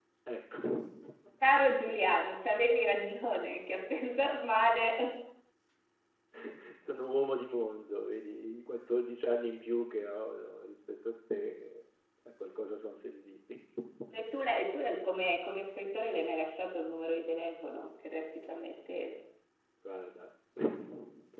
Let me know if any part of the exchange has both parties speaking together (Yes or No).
No